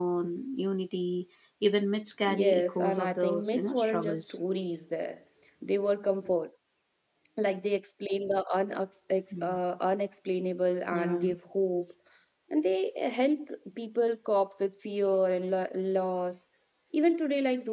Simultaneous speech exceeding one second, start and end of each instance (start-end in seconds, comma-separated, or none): 2.2-4.2